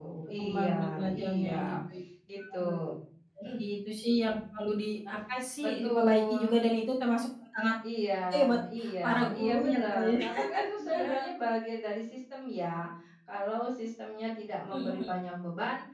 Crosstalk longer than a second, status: present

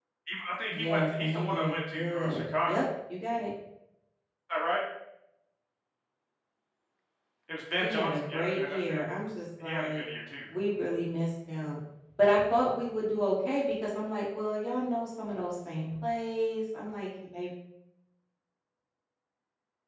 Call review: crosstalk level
present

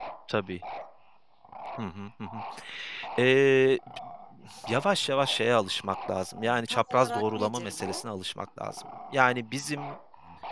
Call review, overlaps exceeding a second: present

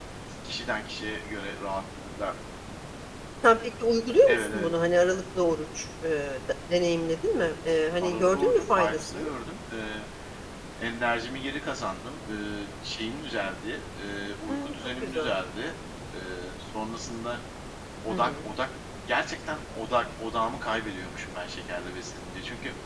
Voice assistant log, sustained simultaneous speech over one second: present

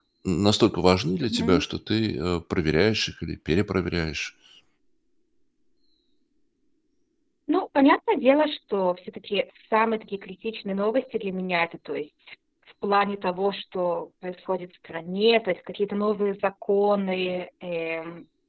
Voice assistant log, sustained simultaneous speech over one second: none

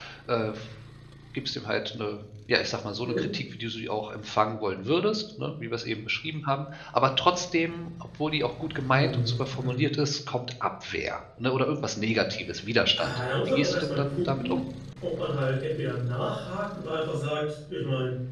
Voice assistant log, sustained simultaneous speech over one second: present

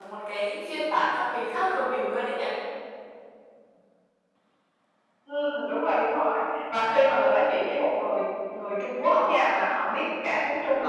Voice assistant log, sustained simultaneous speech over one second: none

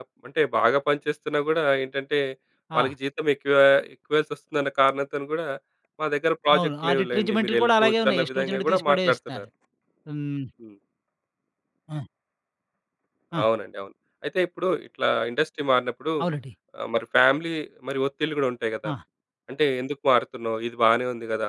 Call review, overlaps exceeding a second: present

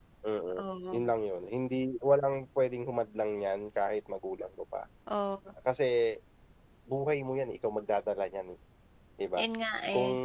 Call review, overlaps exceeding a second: none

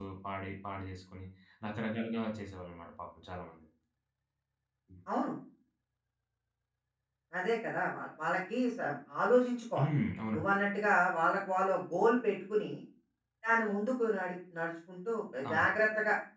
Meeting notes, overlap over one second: none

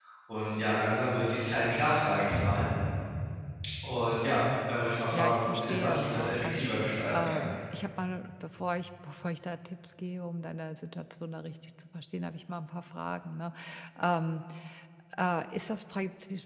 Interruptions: present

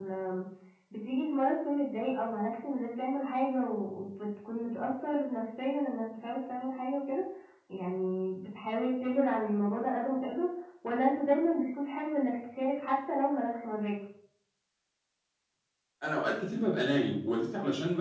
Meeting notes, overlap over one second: none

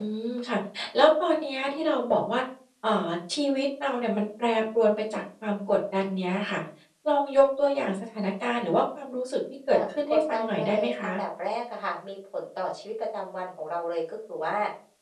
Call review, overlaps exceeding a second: present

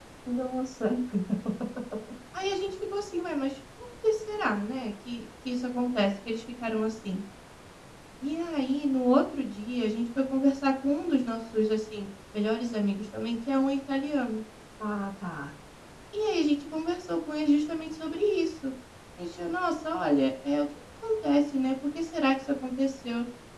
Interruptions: none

